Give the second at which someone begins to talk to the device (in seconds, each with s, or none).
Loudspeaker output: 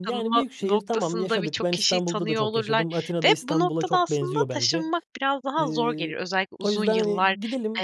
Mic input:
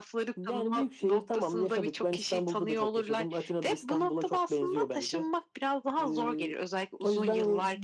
none